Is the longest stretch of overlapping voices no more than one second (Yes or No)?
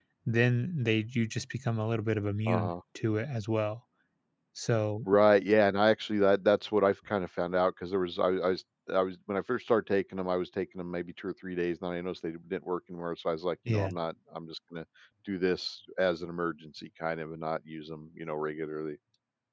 Yes